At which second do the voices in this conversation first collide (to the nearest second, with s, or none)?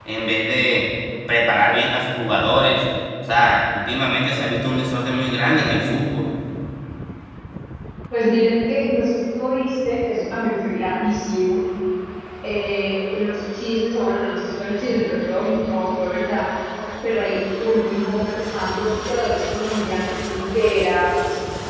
none